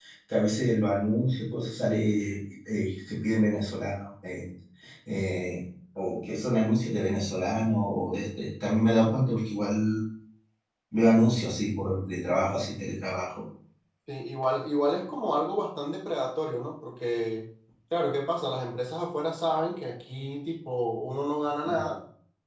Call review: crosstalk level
none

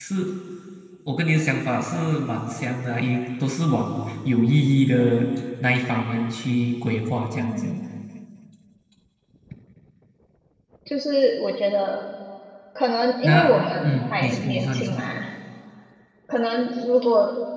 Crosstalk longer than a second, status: present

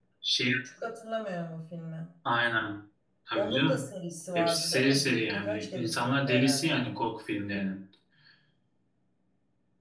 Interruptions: present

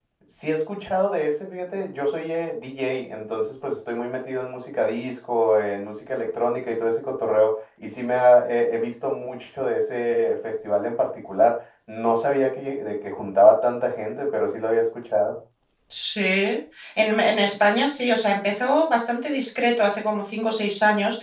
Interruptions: none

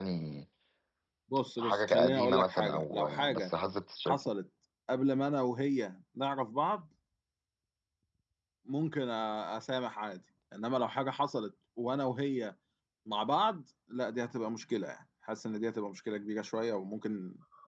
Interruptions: present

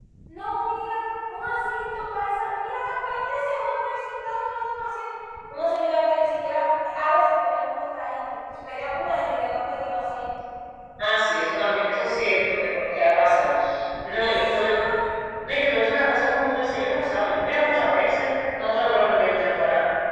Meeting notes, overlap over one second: none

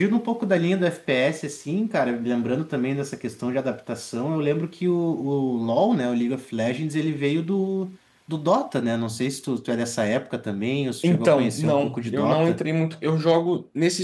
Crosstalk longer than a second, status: present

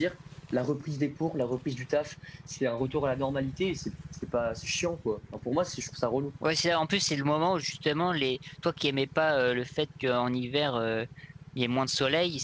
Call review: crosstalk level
none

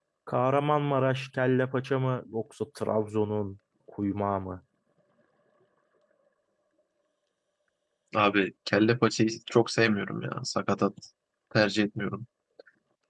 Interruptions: none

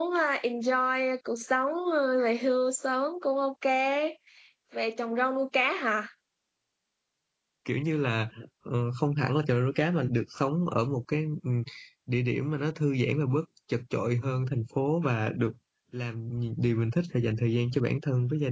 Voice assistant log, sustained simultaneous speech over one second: none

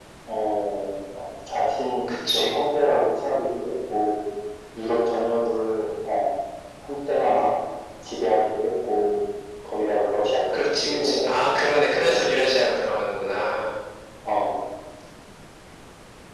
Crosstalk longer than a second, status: present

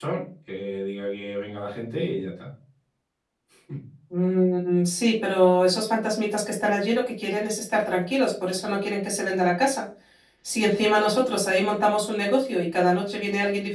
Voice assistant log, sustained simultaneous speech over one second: none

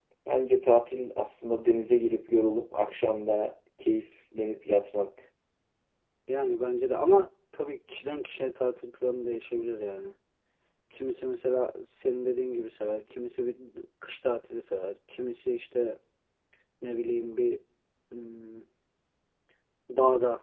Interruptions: none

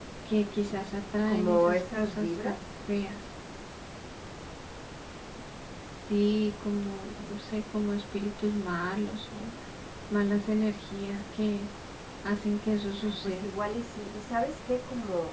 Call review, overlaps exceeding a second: present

